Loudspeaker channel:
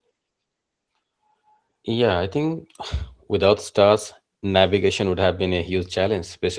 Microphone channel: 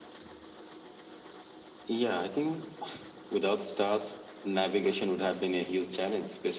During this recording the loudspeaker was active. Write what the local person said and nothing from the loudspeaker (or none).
none